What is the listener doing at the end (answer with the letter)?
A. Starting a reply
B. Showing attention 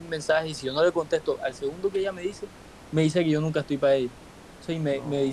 B